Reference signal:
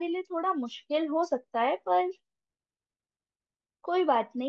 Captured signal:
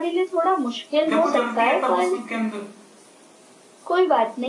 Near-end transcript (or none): जब वो जलती है तब उसमें के अंदर